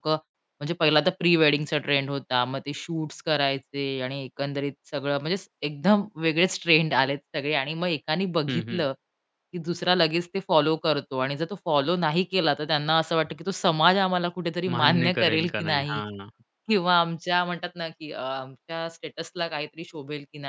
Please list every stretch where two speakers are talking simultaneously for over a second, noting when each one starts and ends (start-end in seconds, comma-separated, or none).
14.7-16.0